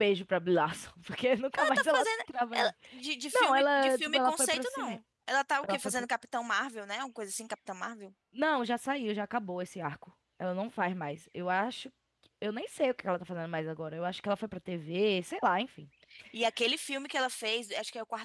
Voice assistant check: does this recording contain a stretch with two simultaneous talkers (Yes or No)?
Yes